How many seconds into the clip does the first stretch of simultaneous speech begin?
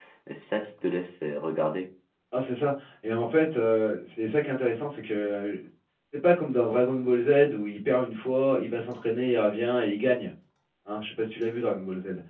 none

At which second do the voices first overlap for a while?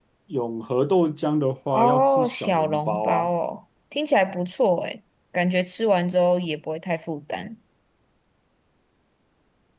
1.7 s

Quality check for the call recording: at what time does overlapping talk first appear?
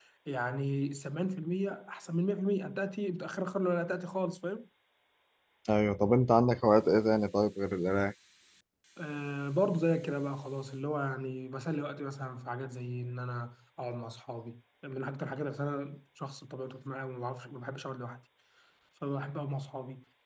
none

